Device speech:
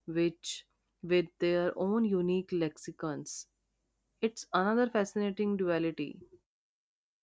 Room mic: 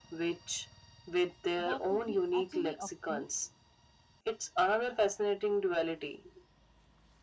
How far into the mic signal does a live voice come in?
2 s

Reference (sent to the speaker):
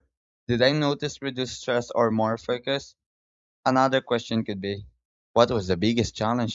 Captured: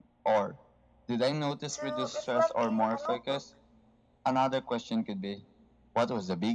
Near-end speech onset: 2 s

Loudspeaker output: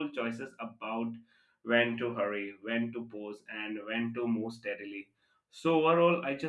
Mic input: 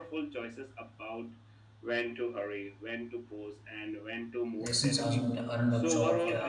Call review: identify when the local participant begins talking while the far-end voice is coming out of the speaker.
5 s

